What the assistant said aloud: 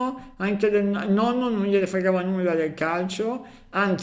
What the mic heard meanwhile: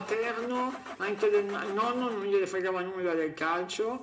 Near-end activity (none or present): none